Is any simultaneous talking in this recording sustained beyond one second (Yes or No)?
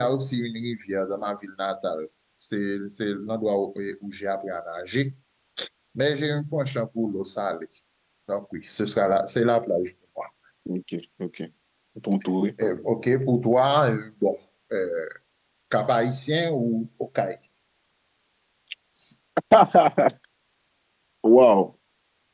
No